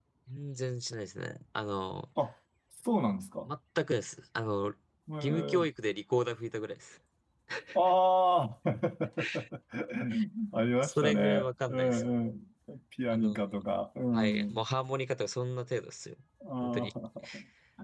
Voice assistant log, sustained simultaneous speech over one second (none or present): present